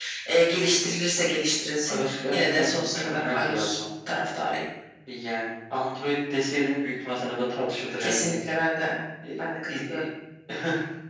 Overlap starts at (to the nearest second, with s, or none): 2 s